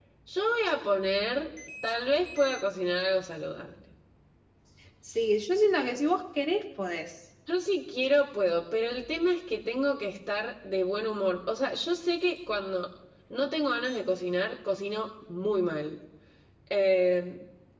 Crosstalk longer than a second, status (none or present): none